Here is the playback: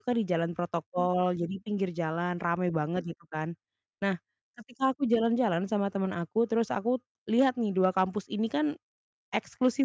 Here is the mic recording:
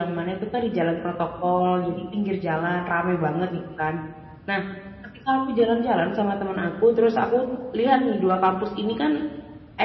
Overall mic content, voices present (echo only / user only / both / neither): echo only